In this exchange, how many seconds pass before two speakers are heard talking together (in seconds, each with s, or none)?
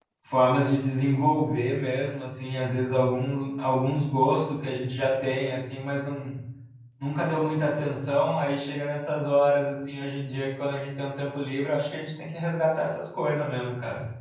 none